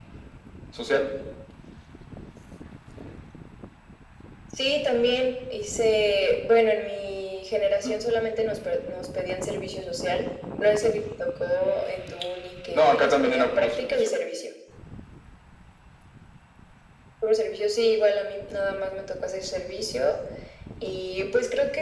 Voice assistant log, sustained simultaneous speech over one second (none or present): present